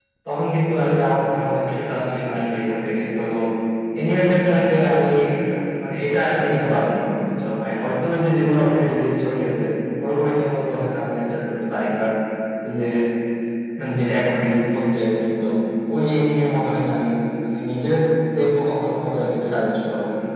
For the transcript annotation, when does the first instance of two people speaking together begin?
none

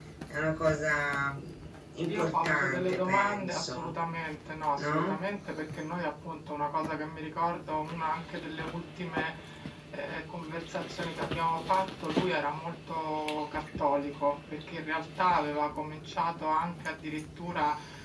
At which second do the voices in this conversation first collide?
2.1 s

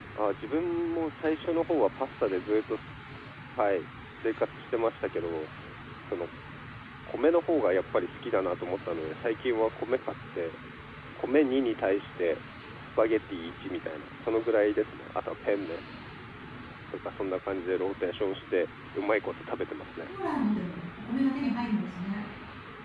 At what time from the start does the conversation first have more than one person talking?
none

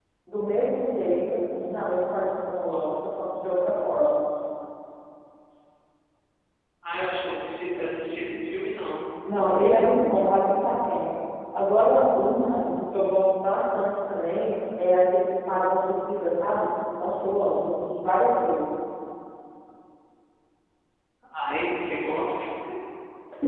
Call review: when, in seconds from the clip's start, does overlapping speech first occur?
none

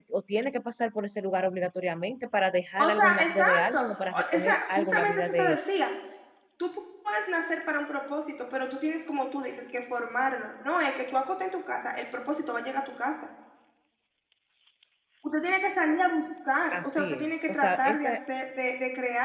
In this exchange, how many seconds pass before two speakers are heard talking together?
2.8 s

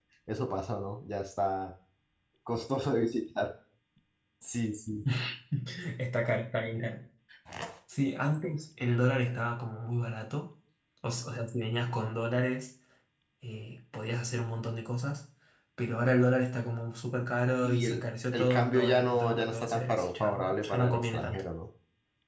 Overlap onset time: 17.6 s

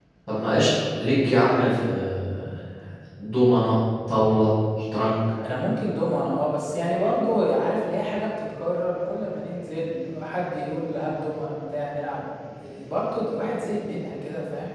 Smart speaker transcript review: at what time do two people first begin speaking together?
none

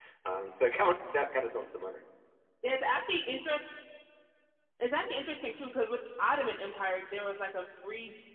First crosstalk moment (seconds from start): none

